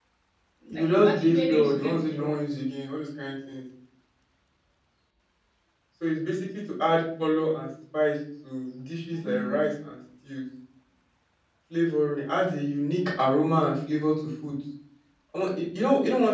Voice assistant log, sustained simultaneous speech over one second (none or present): present